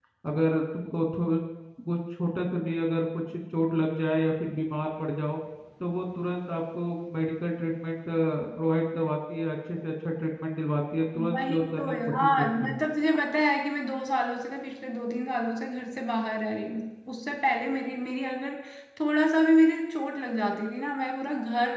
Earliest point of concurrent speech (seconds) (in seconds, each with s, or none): 11.2 s